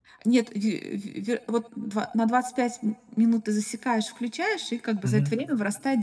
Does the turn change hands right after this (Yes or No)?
No